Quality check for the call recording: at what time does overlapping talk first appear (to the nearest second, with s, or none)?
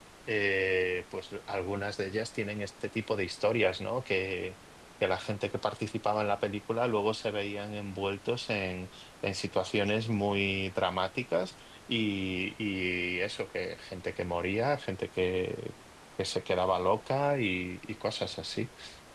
none